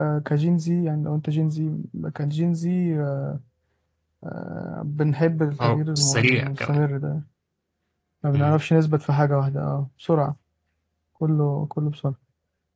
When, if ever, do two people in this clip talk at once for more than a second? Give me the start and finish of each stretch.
5.6-6.8

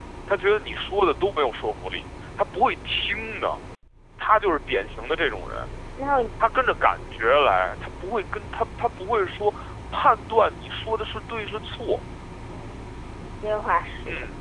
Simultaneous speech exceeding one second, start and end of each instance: none

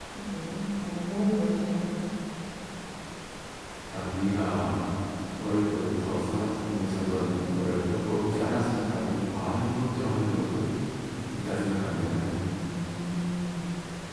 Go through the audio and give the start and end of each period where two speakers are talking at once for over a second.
none

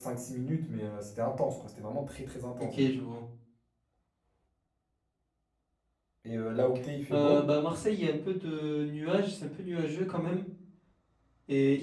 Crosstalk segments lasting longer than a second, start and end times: none

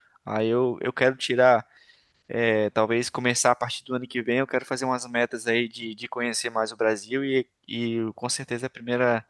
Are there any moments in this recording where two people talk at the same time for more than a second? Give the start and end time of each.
none

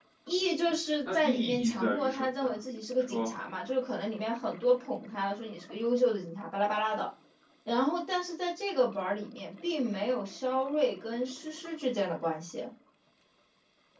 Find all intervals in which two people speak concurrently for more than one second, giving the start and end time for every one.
1.1-2.5

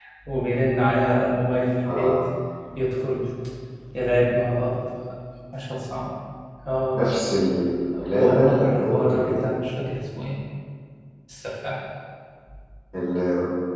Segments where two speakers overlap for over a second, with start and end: 8.2-9.6

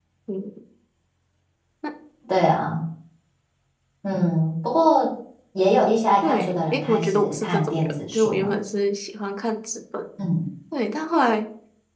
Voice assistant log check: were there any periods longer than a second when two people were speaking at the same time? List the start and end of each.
6.2-8.5

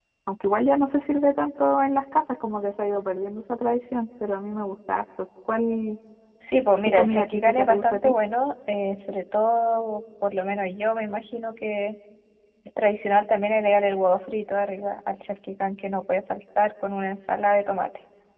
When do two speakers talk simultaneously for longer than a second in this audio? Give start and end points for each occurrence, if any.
6.8-8.1

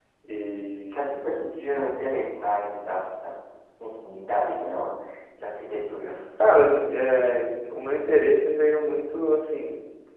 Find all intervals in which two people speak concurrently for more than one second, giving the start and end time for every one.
none

